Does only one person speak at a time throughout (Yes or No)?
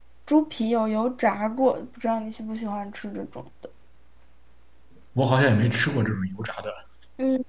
Yes